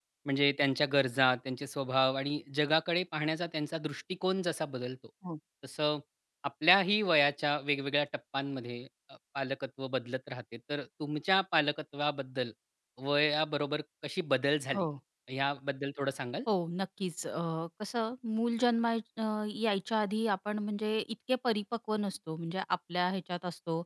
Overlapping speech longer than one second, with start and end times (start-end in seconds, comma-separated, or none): none